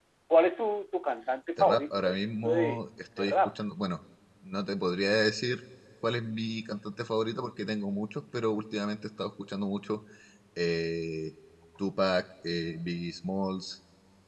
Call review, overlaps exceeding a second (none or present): present